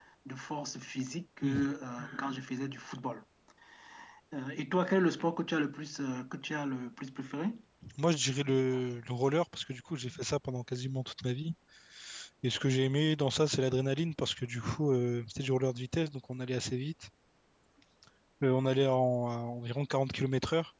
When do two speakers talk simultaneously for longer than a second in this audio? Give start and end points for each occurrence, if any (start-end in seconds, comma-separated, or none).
none